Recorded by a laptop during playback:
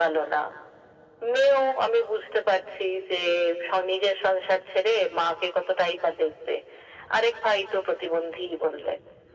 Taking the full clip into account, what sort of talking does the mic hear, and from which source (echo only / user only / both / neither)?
echo only